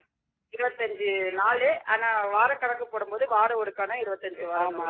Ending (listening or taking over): taking over